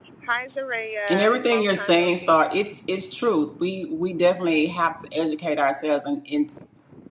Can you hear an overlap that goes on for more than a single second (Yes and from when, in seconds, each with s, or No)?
Yes, from 1.1 s